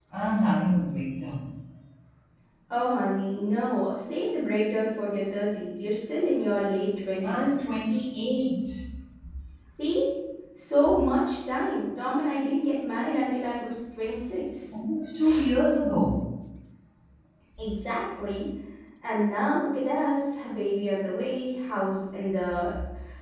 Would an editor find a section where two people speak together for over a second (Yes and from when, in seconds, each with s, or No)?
No